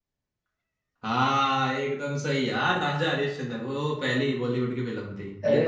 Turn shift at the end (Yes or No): Yes